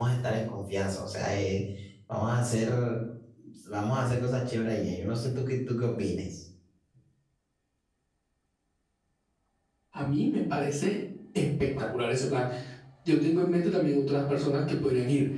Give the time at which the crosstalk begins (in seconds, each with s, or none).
none